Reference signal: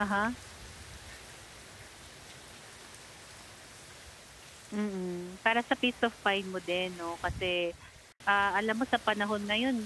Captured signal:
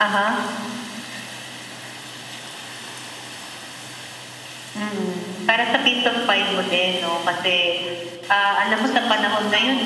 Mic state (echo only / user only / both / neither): both